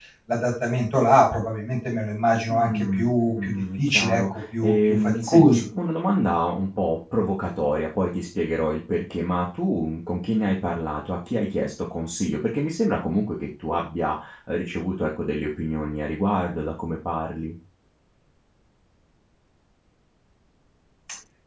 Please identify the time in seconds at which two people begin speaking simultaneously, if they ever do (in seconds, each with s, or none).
2.5 s